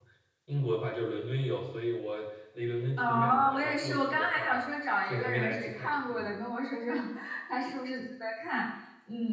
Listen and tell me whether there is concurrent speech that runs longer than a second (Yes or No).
Yes